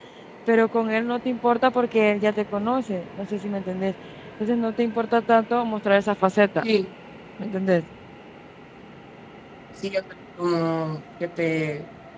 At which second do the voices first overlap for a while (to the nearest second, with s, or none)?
none